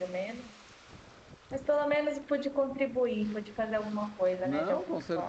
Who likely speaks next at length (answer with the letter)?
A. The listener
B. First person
A